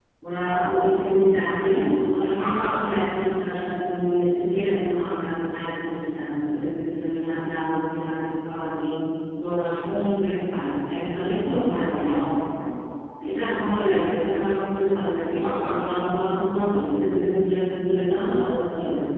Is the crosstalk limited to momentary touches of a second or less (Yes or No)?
Yes